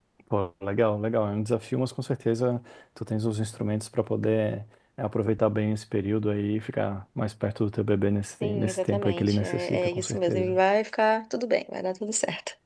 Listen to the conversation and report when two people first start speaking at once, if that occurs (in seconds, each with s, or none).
8.4 s